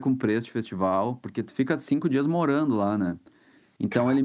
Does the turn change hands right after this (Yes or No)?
No